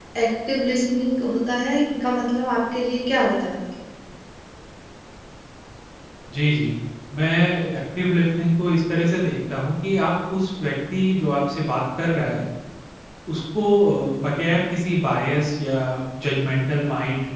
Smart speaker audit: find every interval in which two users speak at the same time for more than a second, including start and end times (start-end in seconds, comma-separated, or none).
none